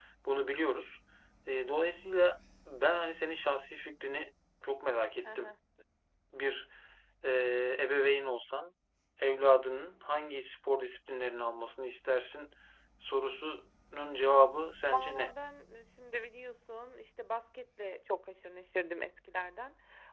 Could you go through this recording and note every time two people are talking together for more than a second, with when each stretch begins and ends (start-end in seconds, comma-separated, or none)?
none